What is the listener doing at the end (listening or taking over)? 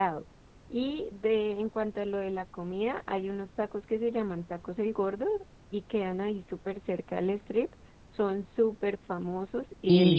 taking over